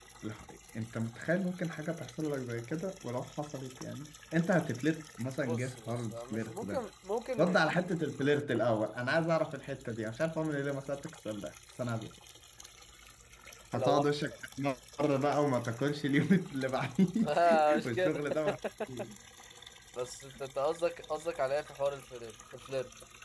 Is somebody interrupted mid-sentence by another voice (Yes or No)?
Yes